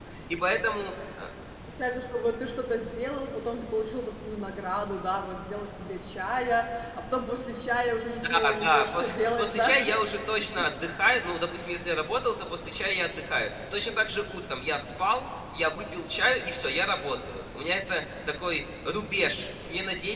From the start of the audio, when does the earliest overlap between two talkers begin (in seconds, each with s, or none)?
8.2 s